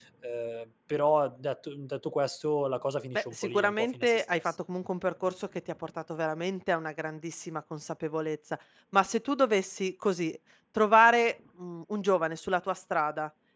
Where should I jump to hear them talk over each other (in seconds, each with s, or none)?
3.1 s